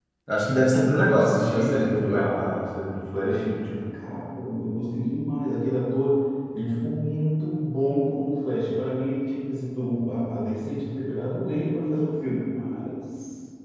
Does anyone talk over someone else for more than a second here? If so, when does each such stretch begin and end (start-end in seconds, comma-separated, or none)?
1.0-2.2